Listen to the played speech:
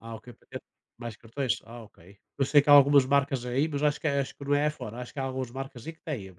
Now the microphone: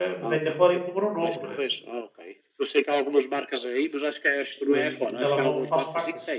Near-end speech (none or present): present